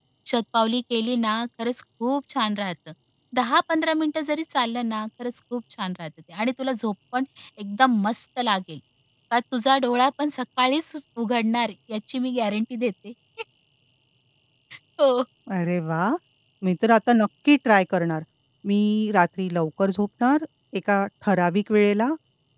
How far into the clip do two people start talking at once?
none

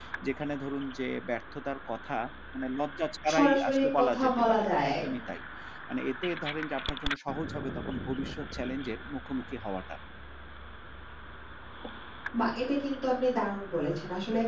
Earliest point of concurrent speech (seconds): 3.3 s

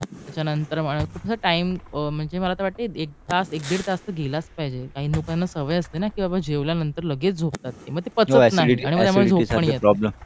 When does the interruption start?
8.3 s

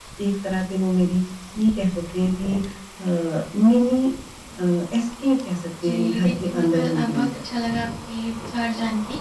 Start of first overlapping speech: 5.8 s

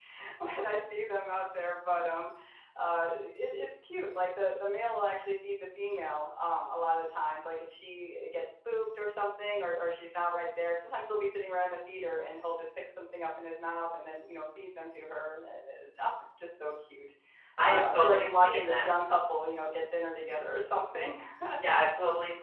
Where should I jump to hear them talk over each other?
17.6 s

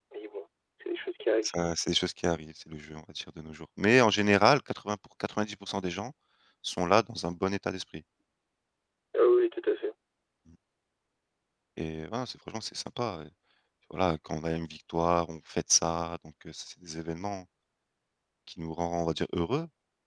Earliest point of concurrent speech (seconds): none

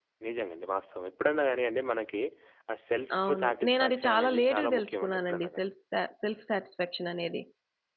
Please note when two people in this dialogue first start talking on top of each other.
3.3 s

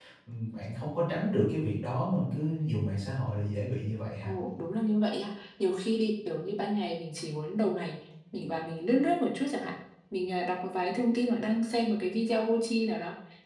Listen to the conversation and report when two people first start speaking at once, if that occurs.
none

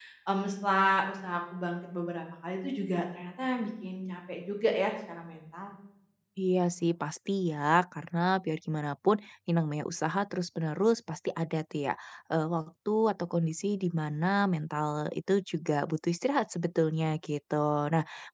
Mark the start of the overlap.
none

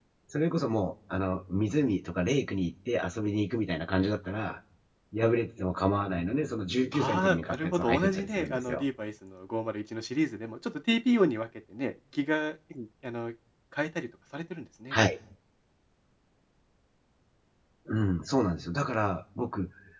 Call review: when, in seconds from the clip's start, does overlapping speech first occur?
6.9 s

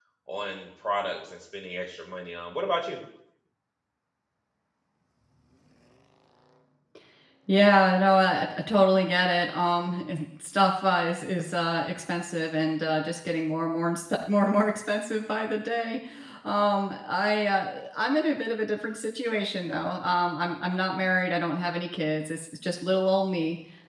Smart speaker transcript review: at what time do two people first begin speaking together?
none

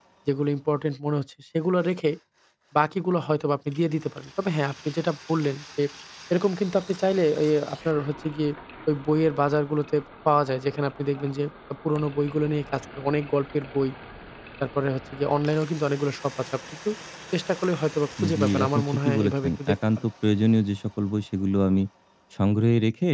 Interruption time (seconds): 18.2 s

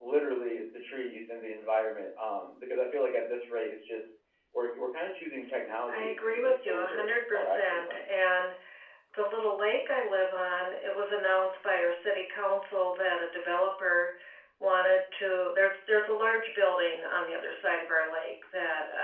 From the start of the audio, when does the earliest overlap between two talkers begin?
5.9 s

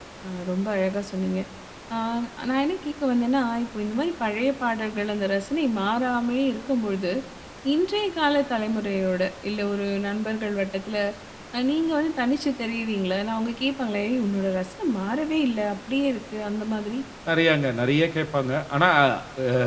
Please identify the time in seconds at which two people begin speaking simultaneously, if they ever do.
none

